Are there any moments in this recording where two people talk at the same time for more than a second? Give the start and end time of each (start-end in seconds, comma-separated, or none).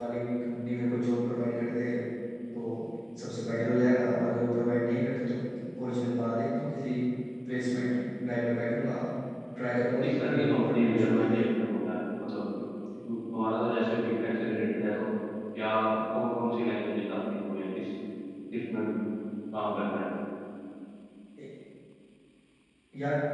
10.0-11.4